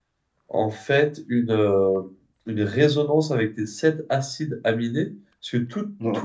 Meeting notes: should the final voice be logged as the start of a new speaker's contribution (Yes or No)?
No